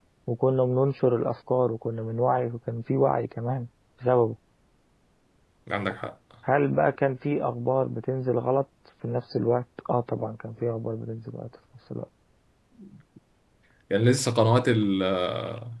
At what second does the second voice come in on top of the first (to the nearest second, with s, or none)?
none